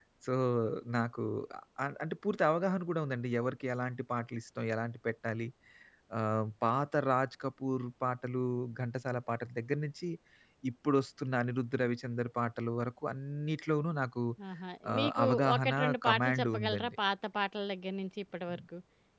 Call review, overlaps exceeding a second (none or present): present